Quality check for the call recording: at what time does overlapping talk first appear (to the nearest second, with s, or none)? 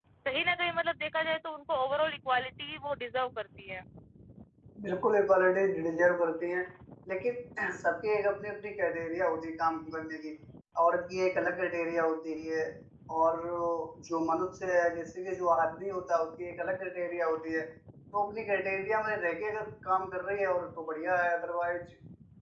none